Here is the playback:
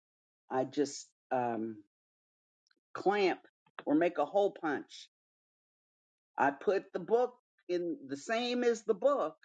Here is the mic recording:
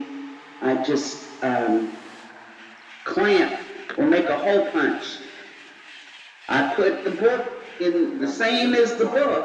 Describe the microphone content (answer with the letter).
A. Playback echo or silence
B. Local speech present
B